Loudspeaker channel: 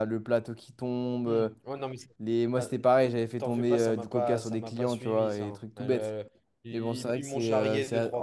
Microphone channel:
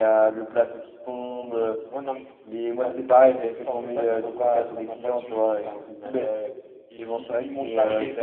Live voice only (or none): none